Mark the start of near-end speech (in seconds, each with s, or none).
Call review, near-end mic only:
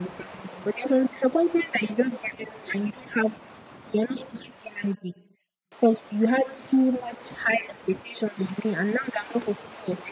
none